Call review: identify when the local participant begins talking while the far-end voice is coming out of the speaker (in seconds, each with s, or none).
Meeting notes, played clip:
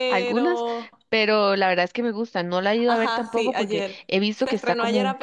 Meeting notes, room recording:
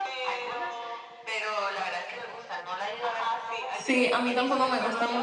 3.7 s